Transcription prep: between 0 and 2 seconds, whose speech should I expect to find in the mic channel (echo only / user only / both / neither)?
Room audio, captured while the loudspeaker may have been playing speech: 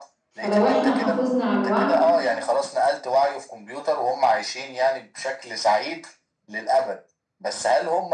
both